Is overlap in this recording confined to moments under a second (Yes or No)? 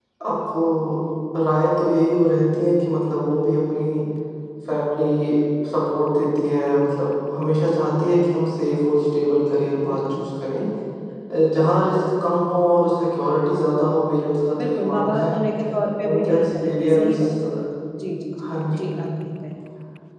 No